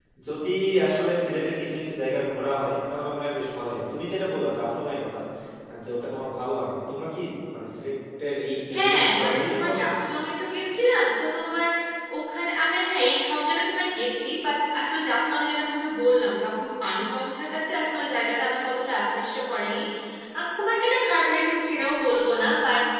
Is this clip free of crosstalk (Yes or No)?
No